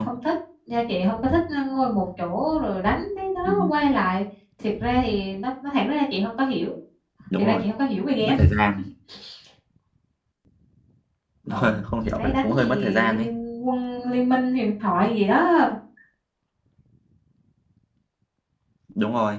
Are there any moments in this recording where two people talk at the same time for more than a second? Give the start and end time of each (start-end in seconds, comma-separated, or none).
11.5-13.2